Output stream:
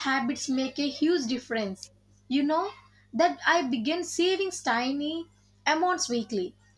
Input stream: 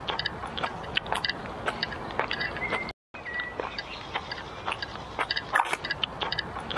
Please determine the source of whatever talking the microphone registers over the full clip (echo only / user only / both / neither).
neither